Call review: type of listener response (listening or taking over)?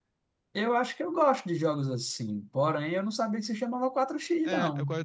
taking over